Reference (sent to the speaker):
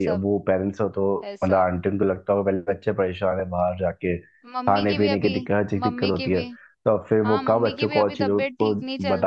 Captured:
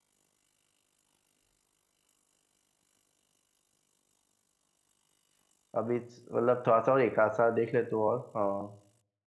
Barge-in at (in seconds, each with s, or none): 5.8 s